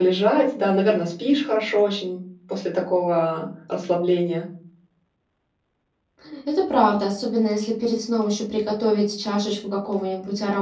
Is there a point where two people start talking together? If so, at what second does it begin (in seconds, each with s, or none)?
none